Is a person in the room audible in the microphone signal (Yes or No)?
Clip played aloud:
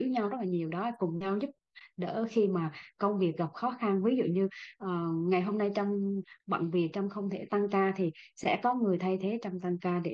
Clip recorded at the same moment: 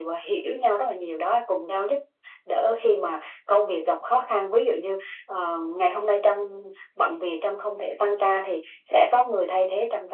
No